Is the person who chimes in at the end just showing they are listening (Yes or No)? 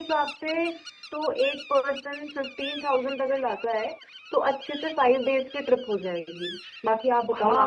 No